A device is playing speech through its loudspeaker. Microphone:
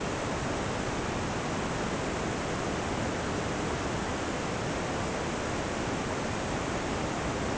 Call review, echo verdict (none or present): none